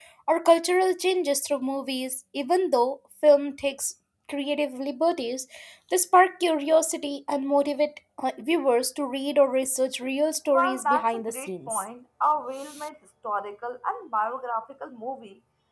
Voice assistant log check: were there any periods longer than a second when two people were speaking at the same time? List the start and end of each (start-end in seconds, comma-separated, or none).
10.5-11.8